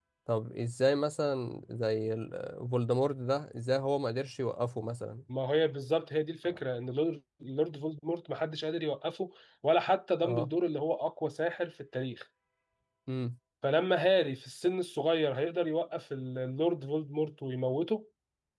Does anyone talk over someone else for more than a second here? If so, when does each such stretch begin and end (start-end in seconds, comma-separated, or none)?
none